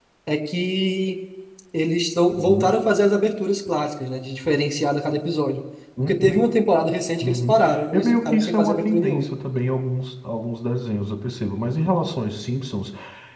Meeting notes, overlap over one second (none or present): present